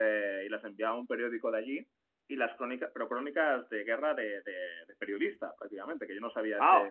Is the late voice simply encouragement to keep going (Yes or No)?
No